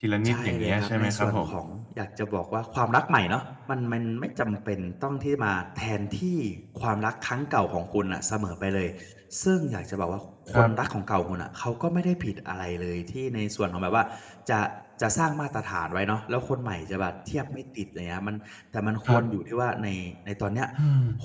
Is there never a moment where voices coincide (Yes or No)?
No